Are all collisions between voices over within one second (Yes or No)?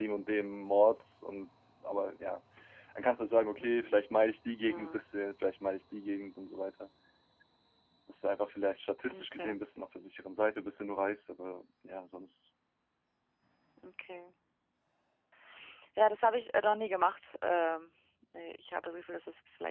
Yes